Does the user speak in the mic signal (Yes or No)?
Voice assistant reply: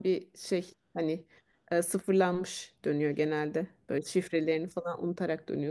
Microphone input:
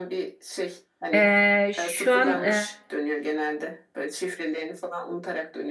Yes